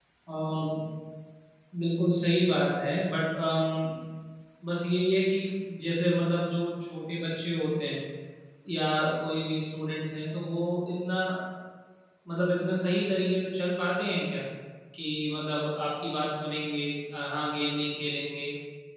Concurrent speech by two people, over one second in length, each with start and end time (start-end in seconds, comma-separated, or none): none